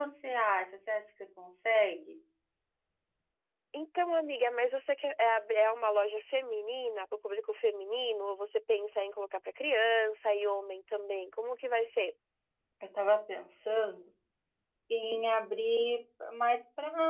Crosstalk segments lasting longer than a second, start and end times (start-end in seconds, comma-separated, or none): none